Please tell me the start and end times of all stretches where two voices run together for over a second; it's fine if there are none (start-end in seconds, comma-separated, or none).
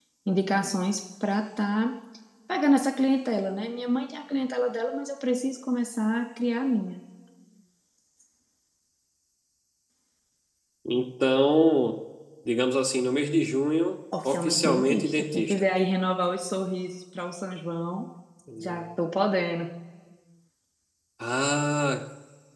14.2-15.7